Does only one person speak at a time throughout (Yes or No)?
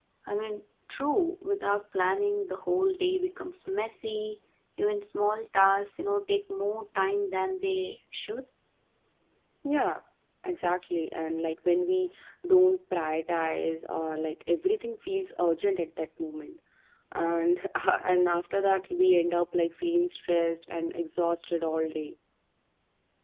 Yes